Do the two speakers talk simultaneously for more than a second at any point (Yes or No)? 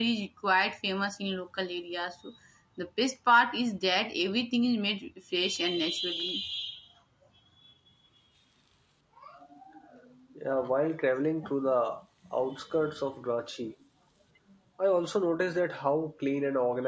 No